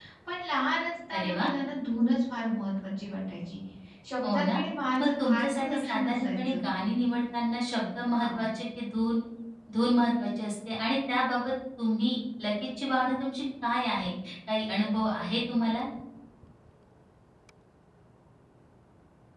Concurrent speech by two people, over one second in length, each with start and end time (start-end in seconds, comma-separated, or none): 5.0-6.6